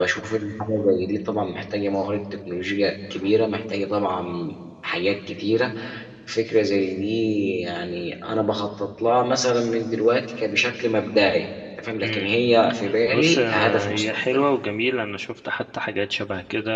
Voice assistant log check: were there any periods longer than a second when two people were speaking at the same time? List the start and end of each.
13.1-14.5

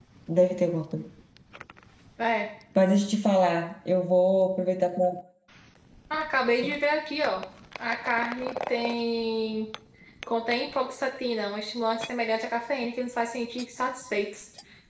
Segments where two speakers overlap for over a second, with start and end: none

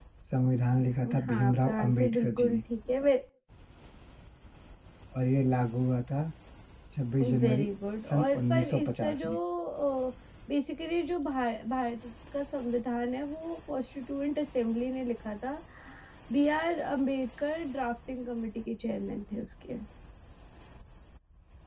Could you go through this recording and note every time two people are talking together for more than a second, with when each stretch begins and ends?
1.2-2.6, 8.1-9.3

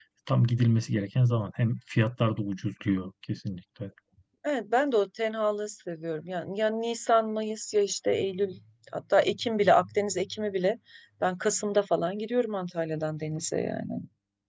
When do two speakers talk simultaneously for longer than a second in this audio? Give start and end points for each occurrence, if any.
none

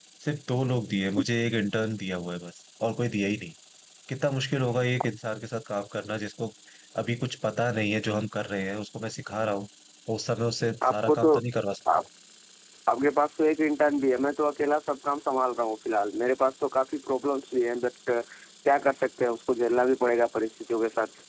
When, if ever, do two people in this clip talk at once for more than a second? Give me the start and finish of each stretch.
none

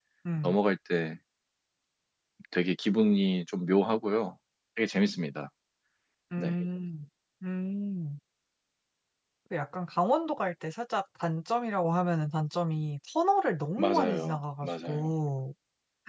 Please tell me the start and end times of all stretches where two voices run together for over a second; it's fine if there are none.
13.8-15.1

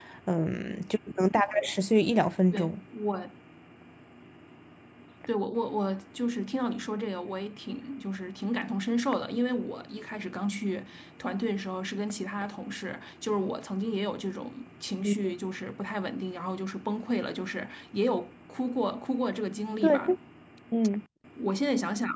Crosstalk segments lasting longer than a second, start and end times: none

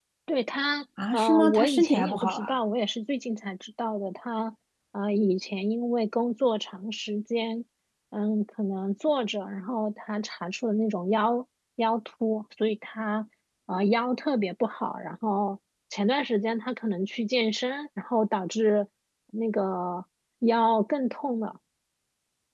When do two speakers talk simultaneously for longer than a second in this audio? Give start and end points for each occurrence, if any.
1.1-2.5

